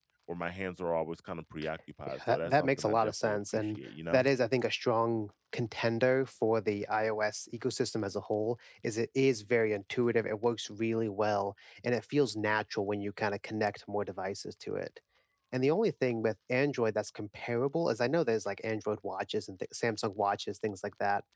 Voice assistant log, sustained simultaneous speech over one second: present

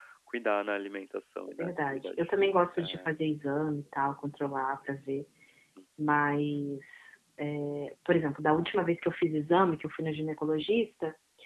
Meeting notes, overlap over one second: present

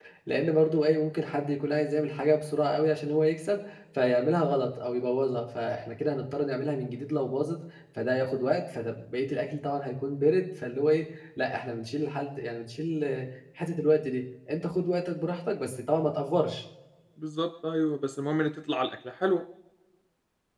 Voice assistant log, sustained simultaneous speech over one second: none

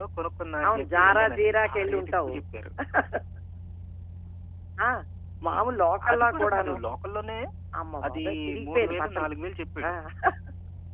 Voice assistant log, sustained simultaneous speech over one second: present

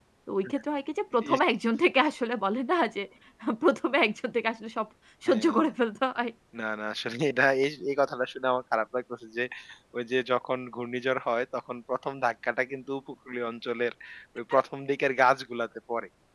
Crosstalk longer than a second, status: none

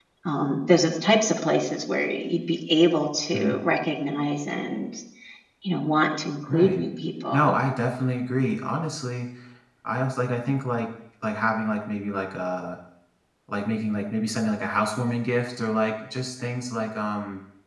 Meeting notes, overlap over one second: none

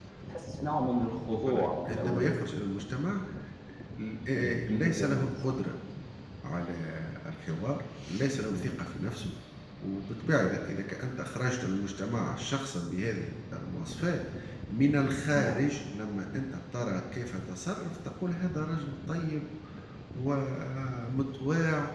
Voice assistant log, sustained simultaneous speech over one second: present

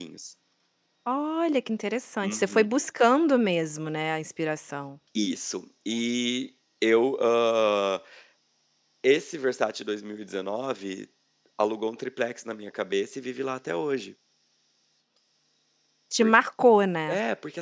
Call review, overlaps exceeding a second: none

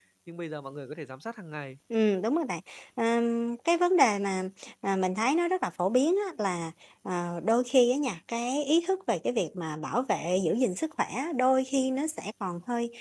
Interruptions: none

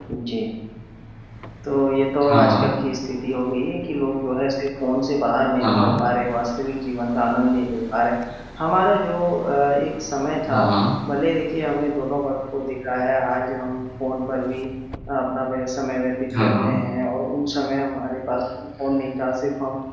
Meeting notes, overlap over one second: none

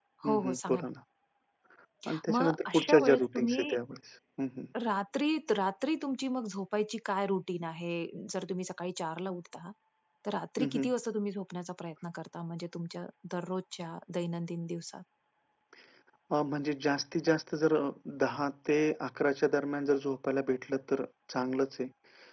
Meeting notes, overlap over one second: present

